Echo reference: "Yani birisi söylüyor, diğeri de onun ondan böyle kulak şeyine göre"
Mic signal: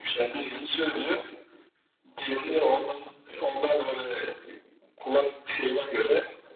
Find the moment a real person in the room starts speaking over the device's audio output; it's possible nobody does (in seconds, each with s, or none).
none